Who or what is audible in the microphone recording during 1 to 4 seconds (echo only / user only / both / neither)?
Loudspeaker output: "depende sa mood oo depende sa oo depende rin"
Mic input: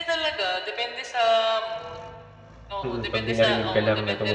both